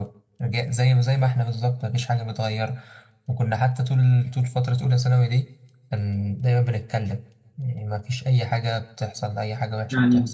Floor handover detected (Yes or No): Yes